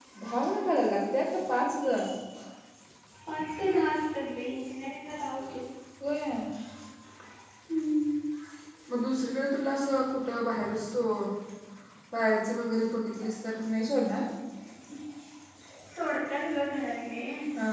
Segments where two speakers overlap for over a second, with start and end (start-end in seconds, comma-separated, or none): none